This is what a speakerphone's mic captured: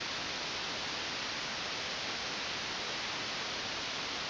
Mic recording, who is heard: neither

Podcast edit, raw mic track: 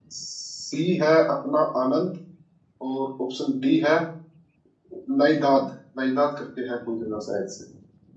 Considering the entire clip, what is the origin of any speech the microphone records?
user only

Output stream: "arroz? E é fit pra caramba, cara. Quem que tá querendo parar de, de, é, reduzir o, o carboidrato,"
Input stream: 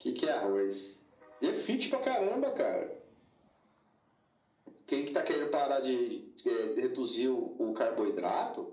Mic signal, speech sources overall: echo only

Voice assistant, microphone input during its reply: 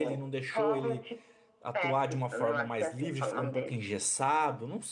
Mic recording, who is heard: both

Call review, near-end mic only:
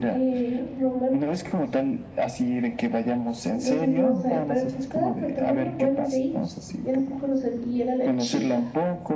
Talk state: both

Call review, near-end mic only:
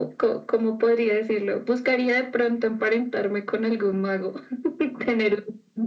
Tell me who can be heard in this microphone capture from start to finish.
echo only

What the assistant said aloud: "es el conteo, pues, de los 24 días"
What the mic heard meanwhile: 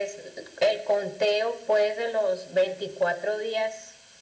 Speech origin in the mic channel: echo only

